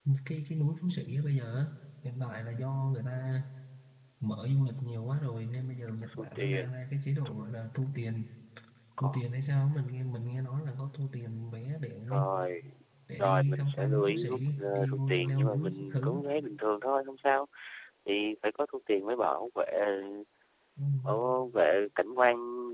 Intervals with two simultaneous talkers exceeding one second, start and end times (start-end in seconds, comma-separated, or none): 13.2-16.2